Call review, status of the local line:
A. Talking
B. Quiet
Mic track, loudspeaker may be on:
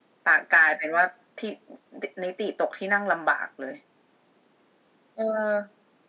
B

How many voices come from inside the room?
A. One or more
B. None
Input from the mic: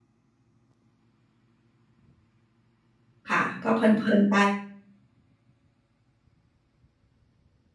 A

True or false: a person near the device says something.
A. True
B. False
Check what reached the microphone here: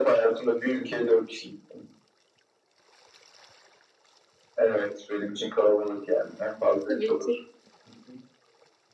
A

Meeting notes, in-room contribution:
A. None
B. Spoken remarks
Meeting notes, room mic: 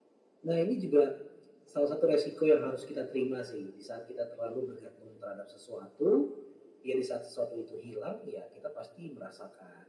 A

